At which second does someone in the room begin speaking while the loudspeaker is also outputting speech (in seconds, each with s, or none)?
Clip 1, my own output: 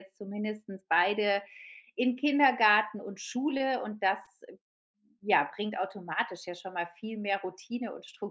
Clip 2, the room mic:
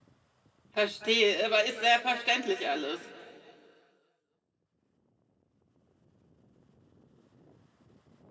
0.7 s